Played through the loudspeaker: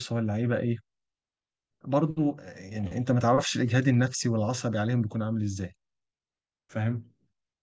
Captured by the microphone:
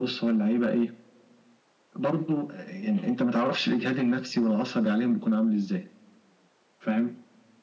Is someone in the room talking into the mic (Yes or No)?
No